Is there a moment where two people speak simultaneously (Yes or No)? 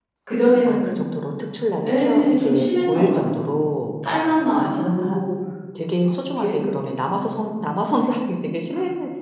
Yes